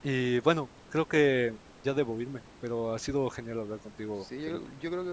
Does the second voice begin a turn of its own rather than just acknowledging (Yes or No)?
Yes